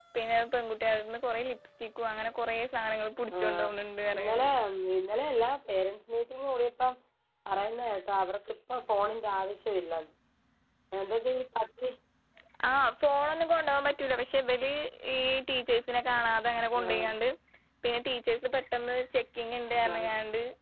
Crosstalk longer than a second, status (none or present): none